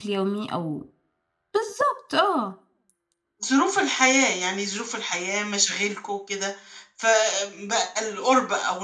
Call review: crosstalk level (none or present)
none